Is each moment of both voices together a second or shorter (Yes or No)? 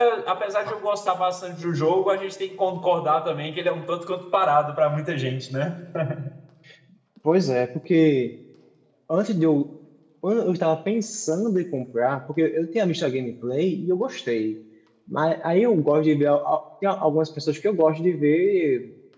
Yes